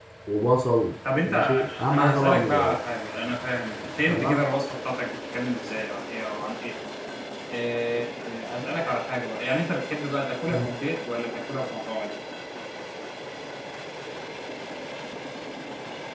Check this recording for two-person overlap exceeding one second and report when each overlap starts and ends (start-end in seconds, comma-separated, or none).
1.2-2.8